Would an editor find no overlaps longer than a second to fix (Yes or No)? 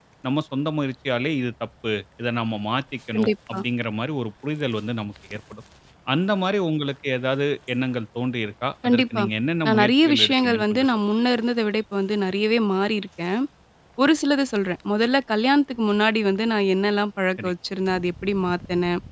No